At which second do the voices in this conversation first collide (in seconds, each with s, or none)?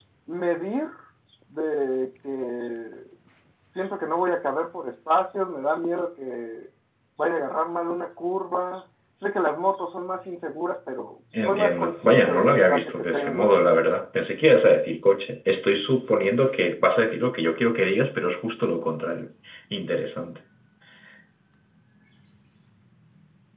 11.3 s